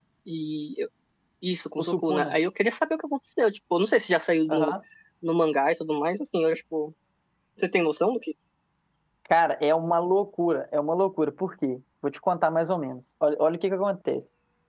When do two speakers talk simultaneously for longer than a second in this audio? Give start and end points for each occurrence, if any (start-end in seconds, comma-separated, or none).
none